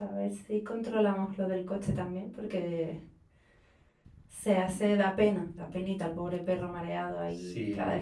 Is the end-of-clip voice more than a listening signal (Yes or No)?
Yes